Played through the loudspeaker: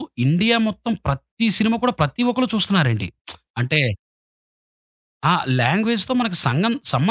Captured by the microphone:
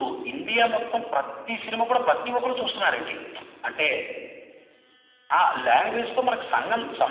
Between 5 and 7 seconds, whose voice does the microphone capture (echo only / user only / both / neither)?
echo only